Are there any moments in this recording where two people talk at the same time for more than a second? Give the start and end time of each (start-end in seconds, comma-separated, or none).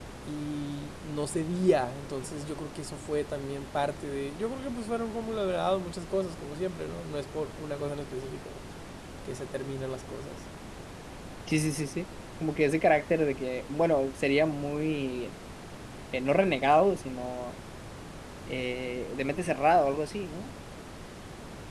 none